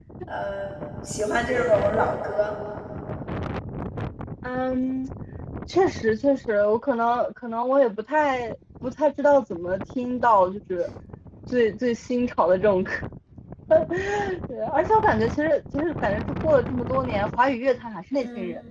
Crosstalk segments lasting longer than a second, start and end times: none

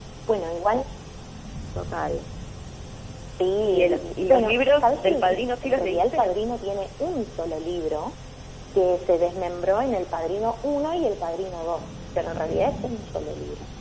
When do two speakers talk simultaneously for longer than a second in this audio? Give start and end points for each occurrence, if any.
3.6-6.3

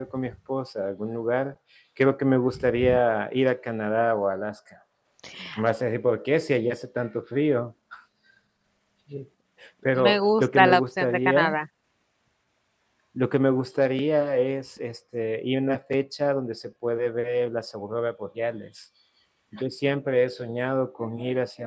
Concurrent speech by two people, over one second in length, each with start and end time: 9.9-11.6

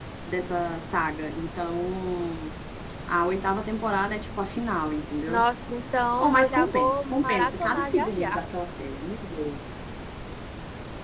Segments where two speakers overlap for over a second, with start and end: 6.2-8.4

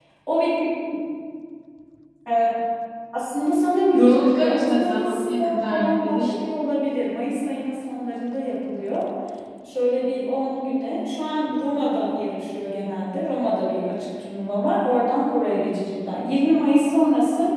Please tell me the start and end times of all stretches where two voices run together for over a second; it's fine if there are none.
3.9-6.4

